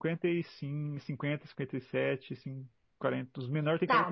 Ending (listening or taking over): taking over